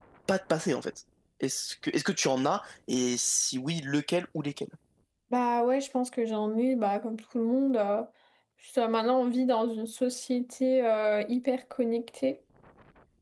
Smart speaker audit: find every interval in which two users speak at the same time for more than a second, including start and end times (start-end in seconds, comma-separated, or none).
none